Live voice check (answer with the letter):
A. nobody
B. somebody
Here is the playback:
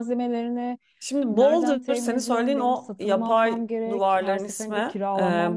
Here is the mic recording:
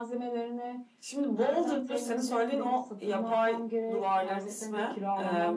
A